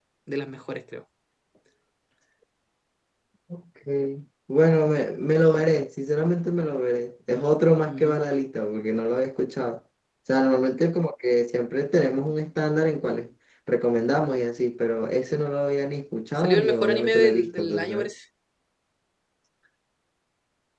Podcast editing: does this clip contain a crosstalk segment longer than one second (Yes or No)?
Yes